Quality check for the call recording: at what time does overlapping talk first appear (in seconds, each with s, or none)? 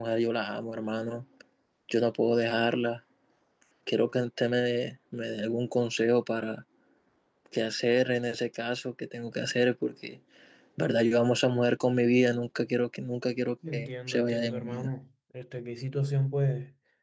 13.7 s